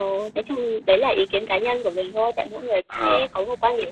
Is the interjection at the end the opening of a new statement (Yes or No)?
No